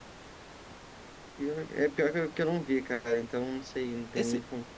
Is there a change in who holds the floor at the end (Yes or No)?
Yes